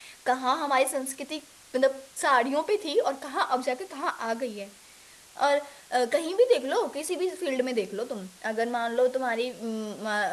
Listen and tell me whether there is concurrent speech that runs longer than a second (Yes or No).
No